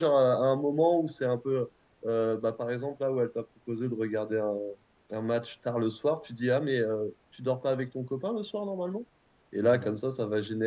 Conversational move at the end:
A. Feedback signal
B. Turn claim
A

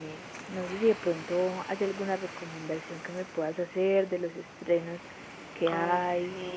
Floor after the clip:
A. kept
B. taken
B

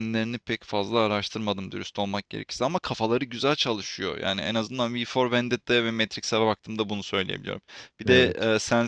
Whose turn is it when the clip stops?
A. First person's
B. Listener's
A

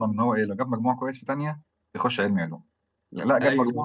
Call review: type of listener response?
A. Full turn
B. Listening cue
B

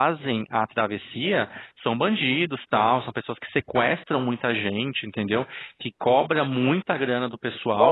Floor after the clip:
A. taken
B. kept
A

